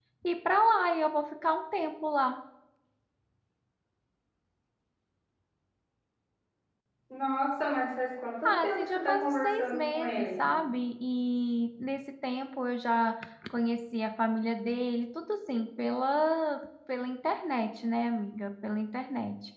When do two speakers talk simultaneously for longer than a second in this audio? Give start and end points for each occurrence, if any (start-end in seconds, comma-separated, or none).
8.4-10.5